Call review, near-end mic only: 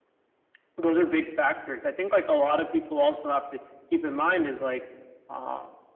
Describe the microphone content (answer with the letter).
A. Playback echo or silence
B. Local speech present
A